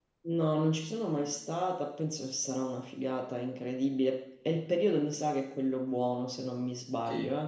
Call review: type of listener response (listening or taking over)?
taking over